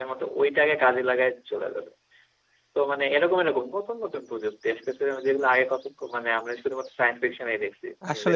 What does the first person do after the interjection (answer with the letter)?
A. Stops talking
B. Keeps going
A